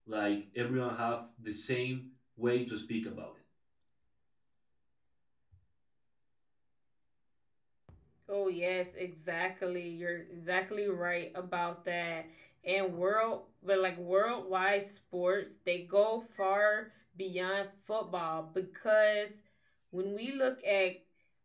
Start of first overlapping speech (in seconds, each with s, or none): none